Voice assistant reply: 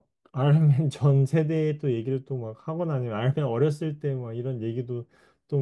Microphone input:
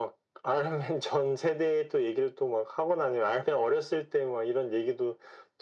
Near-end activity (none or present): none